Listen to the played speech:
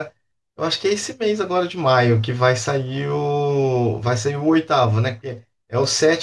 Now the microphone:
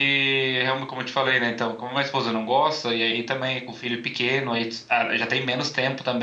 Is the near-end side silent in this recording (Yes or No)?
No